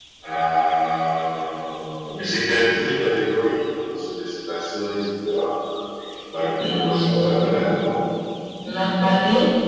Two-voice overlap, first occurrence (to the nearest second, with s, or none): 7 s